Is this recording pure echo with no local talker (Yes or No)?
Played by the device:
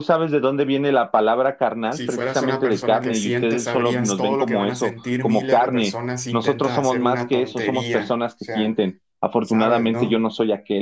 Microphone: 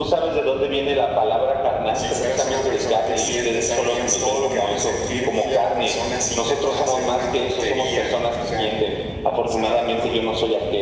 Yes